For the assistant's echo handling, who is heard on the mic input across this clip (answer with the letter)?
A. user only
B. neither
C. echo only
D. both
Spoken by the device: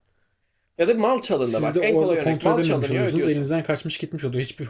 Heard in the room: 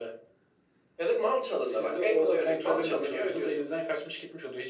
C